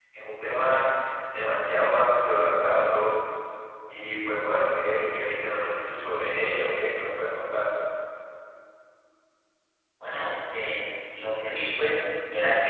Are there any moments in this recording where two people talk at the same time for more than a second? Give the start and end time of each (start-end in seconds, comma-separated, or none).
none